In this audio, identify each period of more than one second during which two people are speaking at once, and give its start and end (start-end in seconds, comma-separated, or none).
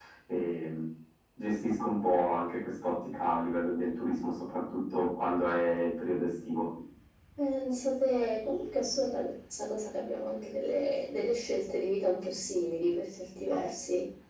none